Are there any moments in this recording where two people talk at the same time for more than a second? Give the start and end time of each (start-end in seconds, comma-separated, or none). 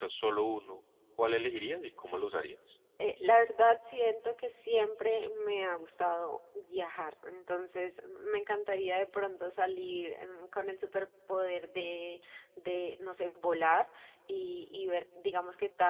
none